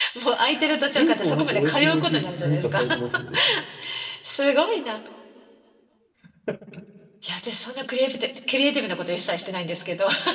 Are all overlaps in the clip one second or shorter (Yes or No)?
No